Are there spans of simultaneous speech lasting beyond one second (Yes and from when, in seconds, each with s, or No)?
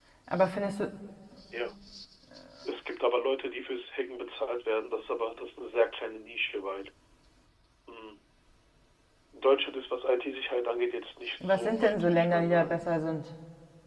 Yes, from 11.4 s